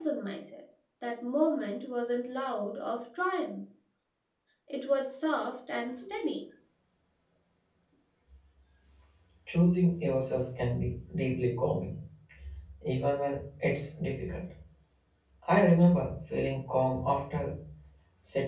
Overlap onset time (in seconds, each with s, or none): none